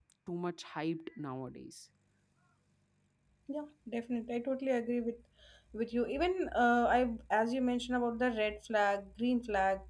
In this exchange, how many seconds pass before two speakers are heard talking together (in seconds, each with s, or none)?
none